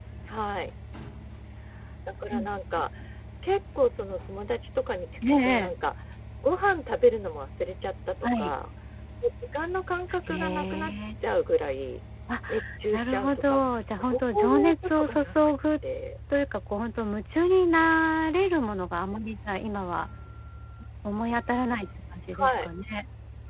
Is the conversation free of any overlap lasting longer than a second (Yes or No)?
No